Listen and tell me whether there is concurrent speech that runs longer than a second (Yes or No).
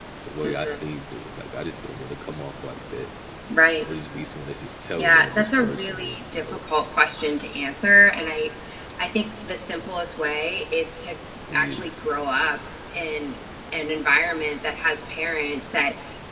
Yes